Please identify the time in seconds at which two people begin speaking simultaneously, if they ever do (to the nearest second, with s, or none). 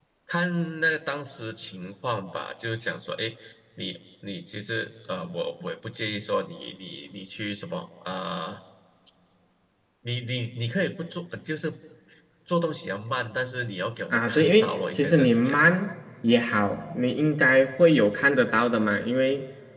14 s